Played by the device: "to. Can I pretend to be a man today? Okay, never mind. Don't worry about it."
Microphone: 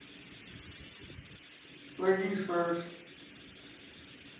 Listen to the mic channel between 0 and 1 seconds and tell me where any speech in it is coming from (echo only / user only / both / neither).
neither